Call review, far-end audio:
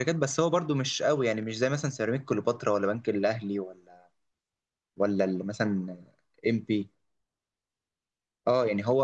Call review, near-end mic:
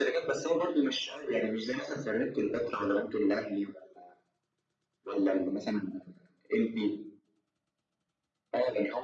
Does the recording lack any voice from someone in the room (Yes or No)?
Yes